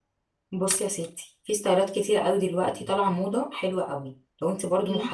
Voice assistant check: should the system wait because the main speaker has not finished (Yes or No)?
Yes